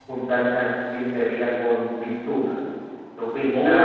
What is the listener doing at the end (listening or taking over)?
taking over